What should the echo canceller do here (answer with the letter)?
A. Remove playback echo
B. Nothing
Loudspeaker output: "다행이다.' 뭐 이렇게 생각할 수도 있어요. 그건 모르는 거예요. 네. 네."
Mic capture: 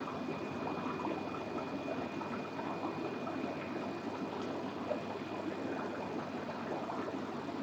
B